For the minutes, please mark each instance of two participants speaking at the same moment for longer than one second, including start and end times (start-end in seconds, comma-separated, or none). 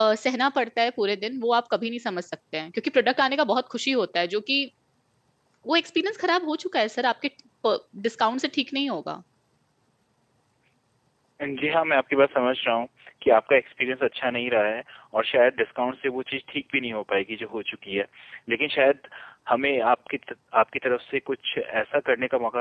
none